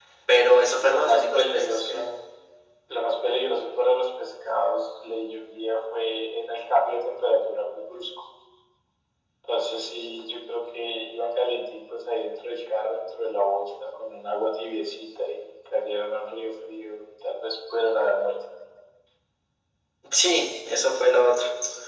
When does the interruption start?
0.8 s

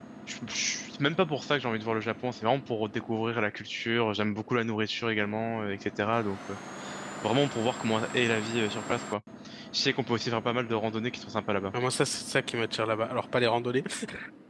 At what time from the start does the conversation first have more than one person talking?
none

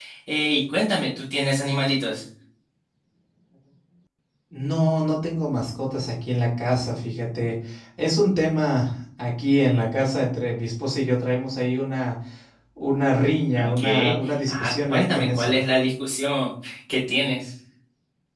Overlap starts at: 13.6 s

